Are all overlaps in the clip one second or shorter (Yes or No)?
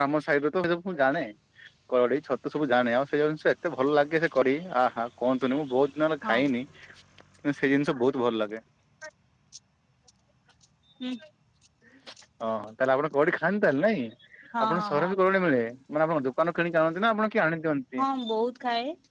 Yes